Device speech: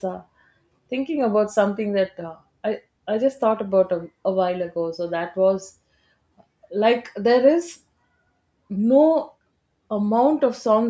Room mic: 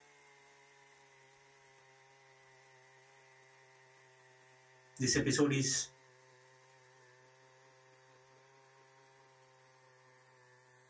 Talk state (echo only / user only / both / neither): user only